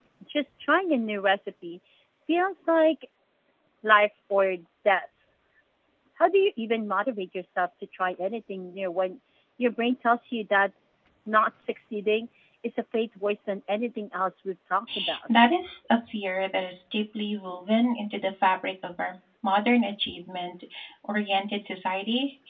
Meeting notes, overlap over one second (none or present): none